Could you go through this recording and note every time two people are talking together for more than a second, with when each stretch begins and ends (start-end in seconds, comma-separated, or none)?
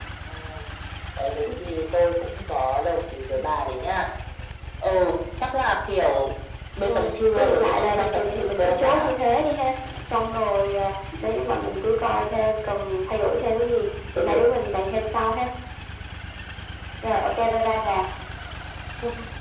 6.8-9.2